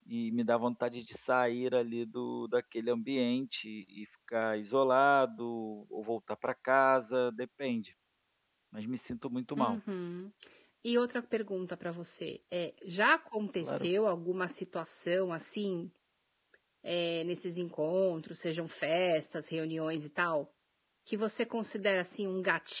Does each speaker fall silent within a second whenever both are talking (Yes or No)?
Yes